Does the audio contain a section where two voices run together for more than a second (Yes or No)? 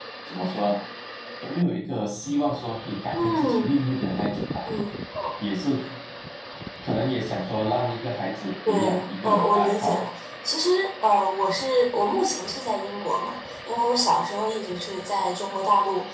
Yes